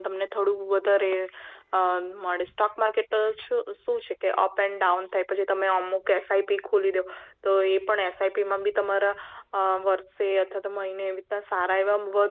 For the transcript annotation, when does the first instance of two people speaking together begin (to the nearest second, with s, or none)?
none